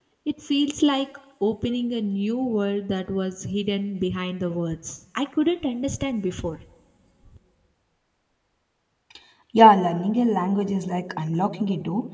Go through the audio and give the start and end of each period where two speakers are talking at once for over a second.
none

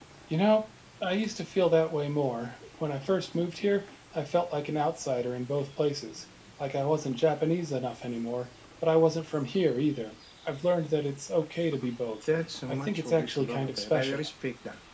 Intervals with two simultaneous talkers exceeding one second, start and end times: 12.7-14.3

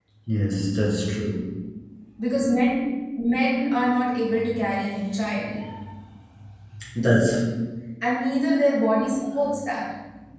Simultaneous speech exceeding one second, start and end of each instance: none

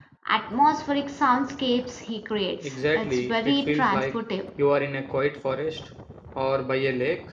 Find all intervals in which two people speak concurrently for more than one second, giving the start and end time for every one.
2.6-4.0

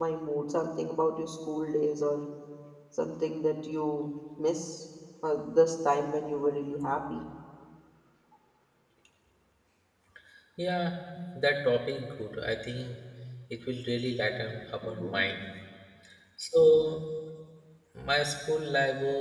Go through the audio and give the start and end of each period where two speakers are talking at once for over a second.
none

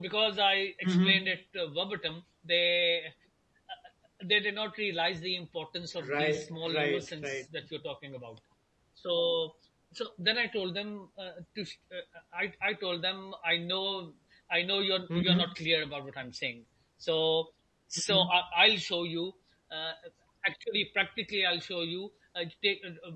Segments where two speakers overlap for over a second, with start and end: 6.1-7.4

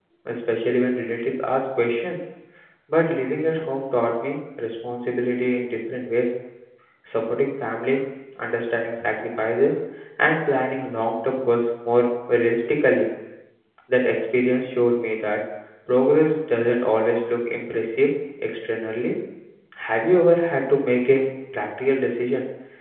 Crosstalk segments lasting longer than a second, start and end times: none

